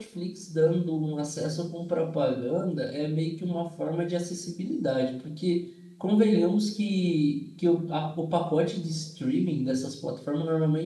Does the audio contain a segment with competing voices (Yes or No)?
No